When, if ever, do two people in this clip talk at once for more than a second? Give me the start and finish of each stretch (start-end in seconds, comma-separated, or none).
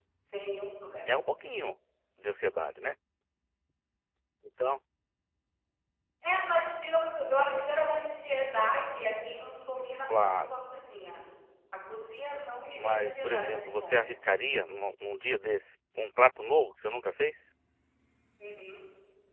12.7-14.0